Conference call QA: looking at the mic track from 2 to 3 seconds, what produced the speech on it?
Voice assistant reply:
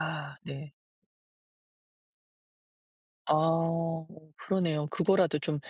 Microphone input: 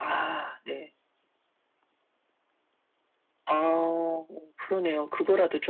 neither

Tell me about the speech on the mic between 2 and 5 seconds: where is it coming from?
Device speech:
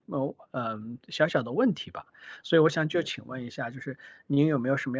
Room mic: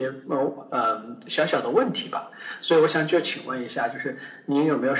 echo only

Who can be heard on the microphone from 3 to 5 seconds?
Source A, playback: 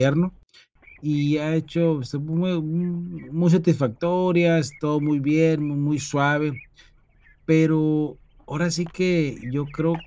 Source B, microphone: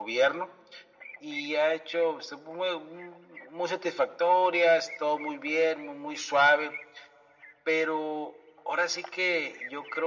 echo only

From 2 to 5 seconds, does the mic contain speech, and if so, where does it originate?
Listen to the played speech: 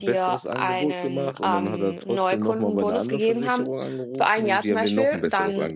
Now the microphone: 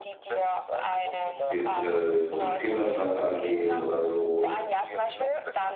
both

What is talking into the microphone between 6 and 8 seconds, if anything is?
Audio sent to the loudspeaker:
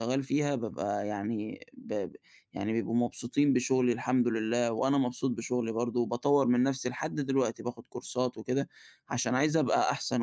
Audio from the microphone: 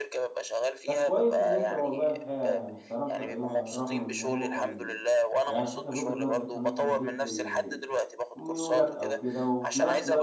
both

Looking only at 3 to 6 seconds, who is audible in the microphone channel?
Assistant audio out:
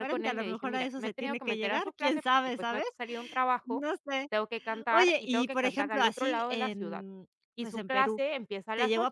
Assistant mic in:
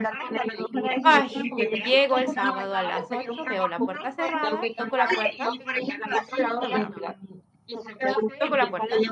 both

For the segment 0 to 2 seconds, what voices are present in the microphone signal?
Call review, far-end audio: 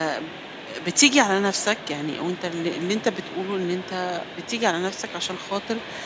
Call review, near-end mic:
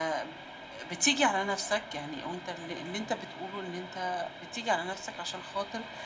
echo only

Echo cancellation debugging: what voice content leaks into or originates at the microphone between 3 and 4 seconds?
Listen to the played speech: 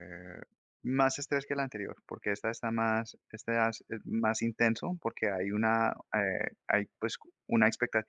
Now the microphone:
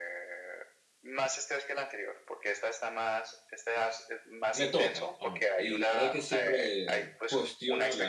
echo only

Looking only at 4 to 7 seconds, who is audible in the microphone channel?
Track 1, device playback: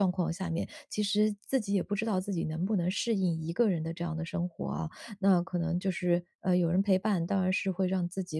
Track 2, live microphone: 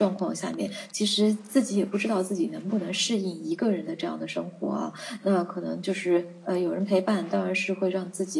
echo only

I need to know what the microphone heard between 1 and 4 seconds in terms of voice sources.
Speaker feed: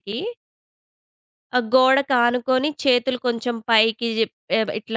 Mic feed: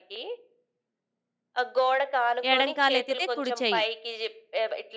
both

